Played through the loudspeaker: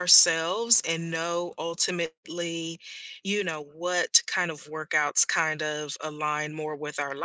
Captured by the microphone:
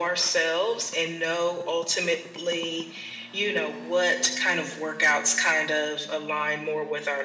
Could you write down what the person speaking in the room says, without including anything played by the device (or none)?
none